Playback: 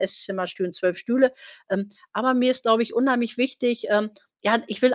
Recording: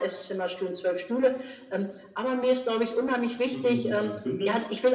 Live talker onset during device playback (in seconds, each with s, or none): 3.5 s